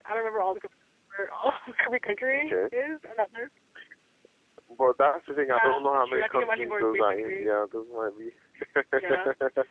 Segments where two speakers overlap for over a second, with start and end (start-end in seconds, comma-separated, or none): 5.5-7.5